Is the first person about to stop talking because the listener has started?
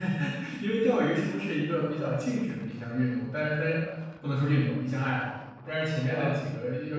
No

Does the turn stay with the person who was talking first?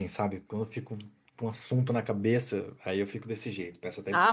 No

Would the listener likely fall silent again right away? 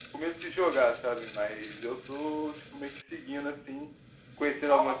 Yes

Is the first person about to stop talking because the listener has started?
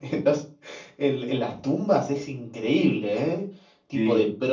No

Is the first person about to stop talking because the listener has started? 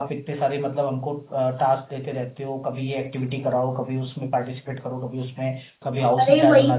Yes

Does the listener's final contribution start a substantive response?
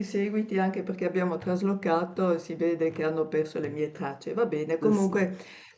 No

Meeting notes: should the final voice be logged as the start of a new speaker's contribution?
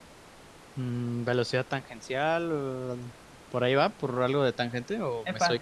Yes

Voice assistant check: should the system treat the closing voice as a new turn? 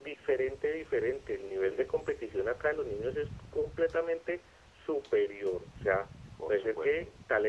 No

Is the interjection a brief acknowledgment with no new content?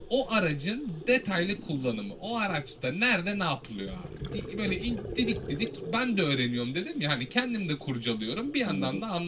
Yes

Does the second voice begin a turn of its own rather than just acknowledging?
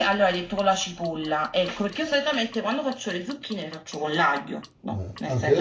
Yes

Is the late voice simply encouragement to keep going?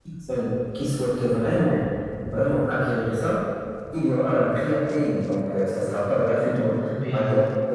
Yes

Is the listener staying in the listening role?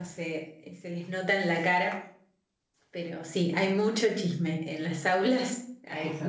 No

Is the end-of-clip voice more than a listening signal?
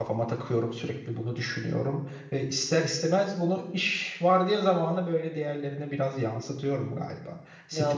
Yes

